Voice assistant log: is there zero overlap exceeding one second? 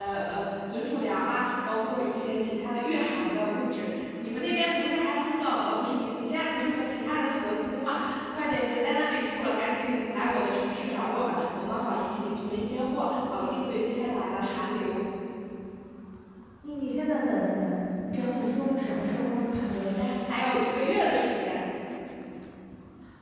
Yes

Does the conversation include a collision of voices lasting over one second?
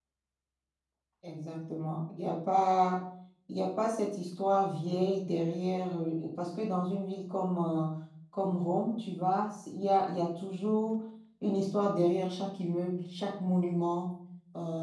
No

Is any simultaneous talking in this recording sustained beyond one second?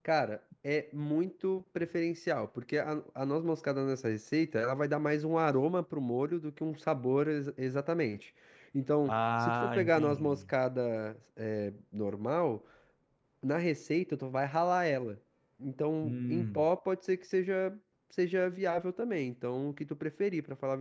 Yes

